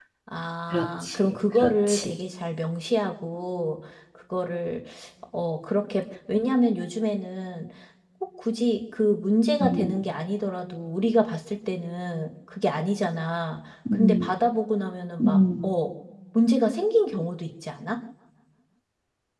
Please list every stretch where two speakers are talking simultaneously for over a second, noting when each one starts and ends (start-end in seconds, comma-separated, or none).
0.7-2.2